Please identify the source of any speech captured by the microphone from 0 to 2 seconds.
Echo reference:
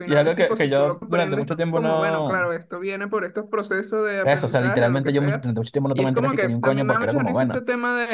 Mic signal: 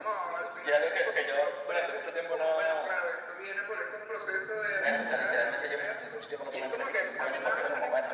echo only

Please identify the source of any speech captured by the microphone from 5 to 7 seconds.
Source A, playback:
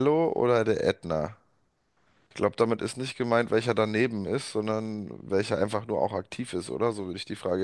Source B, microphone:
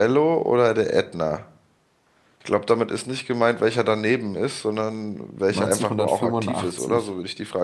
both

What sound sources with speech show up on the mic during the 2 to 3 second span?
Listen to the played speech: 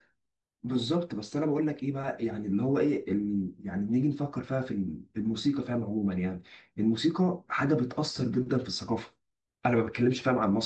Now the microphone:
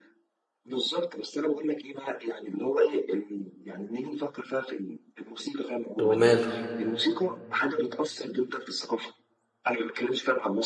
echo only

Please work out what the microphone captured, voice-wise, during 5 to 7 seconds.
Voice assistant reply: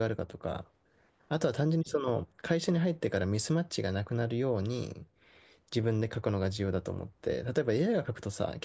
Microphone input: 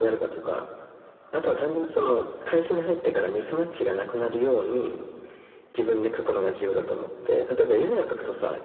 echo only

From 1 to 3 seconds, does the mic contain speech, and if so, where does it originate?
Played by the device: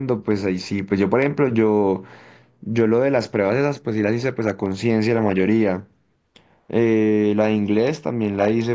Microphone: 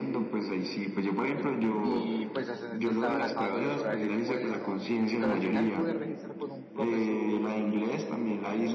both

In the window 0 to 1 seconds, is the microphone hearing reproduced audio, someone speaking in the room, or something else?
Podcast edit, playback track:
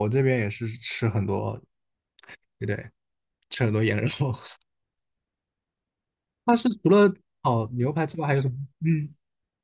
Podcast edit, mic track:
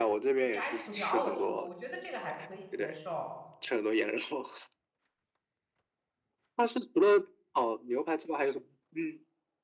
both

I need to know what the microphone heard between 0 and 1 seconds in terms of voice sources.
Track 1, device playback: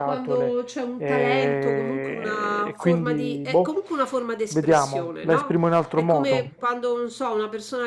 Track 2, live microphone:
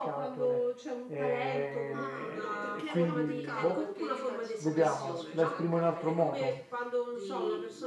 echo only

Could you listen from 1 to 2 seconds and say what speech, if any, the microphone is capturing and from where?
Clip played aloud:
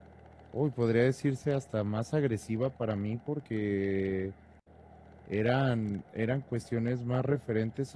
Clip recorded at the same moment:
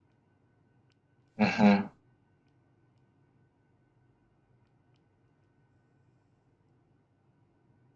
user only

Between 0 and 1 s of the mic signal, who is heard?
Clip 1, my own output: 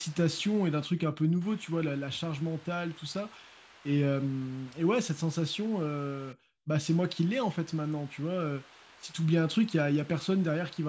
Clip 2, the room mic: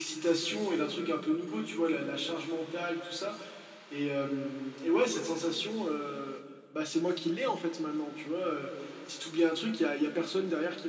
echo only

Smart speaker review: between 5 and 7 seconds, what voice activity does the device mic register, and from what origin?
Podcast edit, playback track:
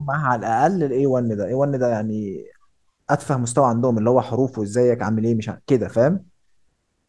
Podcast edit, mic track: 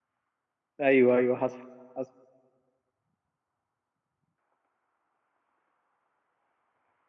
neither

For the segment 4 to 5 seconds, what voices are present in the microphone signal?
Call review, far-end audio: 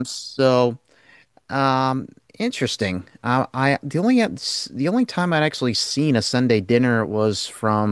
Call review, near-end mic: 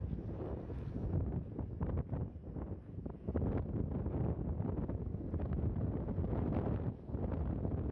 neither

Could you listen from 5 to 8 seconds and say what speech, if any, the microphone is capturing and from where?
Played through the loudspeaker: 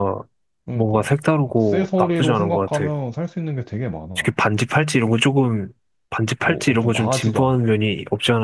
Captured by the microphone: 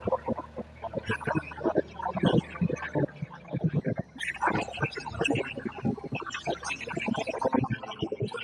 echo only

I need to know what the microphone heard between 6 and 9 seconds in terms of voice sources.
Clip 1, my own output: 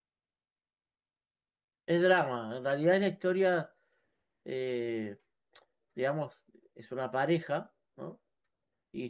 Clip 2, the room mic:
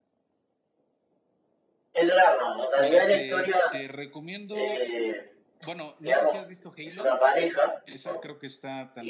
both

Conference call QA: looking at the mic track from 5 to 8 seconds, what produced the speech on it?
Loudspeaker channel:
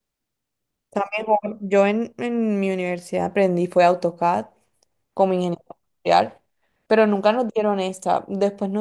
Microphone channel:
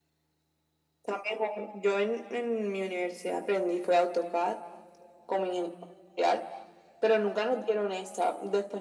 echo only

